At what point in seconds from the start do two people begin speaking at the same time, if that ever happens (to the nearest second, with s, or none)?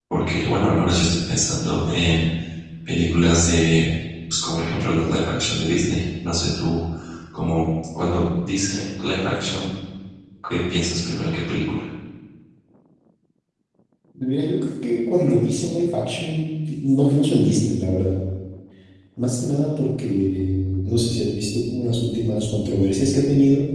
none